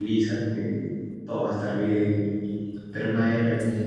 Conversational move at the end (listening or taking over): taking over